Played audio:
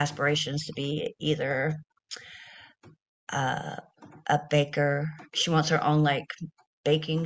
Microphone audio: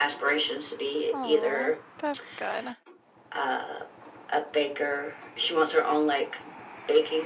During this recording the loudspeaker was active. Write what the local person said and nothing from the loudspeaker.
Oh, that's good.

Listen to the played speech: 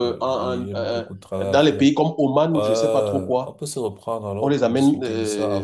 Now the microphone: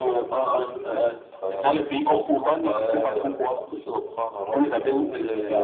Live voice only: none

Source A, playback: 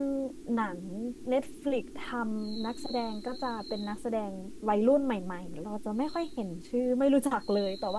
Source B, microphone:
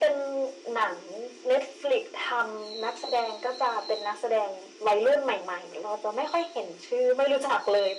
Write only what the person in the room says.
none

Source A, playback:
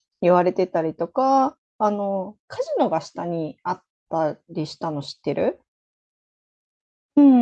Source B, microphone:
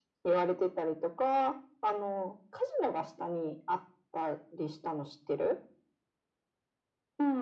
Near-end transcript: none

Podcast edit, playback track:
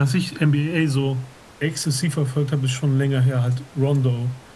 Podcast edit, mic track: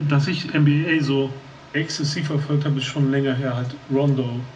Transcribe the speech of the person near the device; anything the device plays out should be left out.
none

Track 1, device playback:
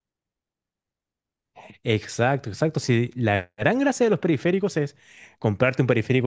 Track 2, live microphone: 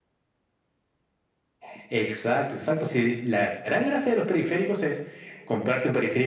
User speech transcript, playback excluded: none

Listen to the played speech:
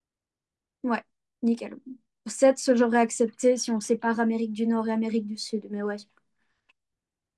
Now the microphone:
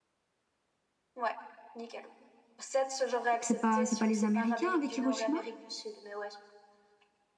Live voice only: C'est pas, c'est pas les Américains avec Hiroshima?

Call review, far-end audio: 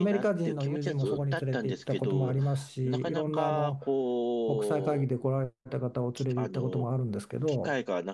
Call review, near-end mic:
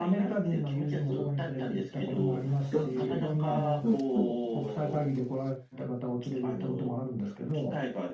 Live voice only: うん、うん、うん、うん、うん。

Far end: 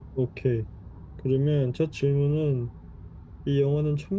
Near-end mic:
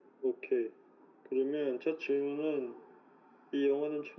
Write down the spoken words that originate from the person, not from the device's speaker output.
none

